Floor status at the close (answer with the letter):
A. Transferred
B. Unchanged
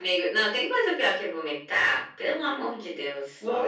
A